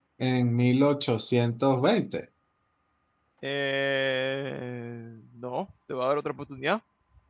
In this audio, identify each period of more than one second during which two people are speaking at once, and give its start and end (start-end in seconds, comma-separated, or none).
none